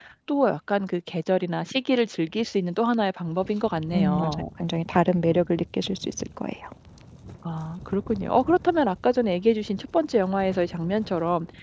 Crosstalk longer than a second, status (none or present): none